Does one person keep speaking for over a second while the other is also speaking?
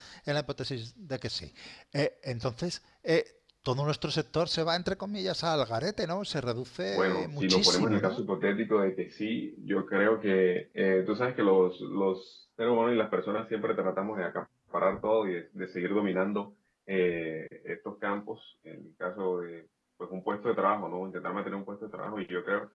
Yes, from 6.9 s

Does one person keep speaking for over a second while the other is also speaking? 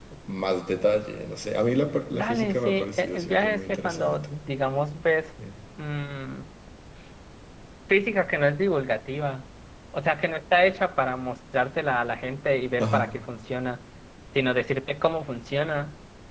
Yes, from 2.1 s

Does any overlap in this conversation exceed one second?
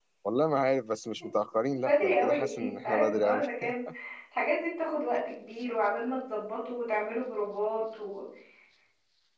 Yes, from 1.7 s

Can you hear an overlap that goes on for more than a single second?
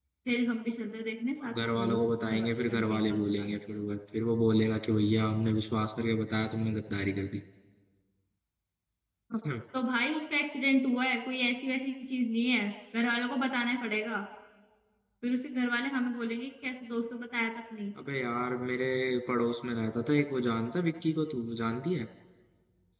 Yes, from 1.4 s

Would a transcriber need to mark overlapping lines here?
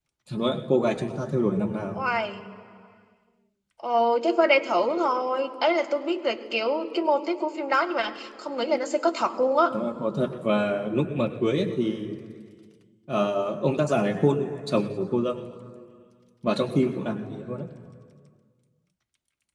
No

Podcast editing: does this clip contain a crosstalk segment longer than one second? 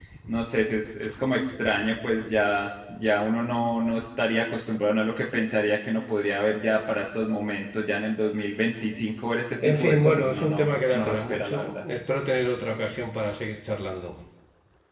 Yes, from 9.6 s

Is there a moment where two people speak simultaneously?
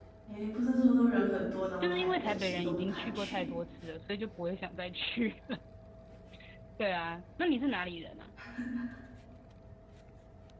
Yes, from 1.8 s

